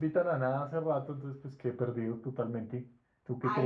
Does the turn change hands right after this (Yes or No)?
Yes